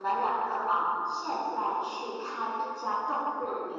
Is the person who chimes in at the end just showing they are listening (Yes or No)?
Yes